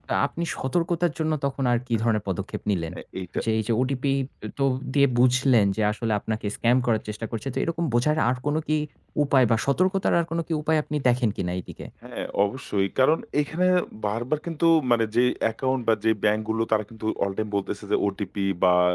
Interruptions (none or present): none